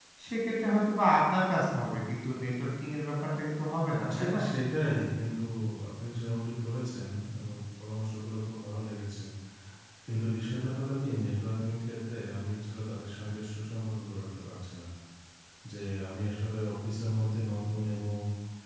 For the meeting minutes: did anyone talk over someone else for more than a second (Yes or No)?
No